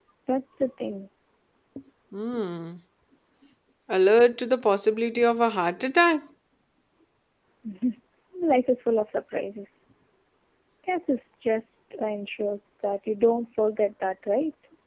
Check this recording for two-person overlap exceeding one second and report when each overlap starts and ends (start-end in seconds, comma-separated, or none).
none